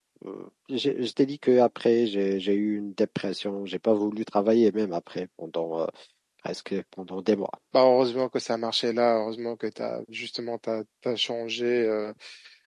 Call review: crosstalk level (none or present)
none